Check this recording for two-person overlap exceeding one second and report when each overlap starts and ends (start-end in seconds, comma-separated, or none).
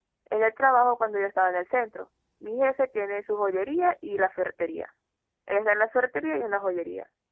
none